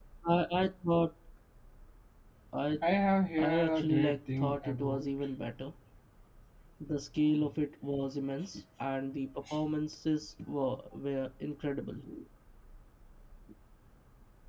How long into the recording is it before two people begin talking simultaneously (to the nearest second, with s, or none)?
3 s